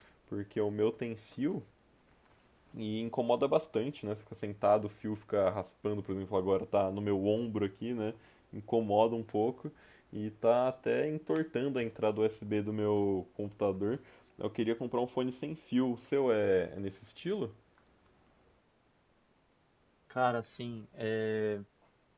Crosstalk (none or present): none